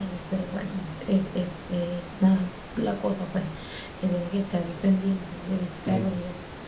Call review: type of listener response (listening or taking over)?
listening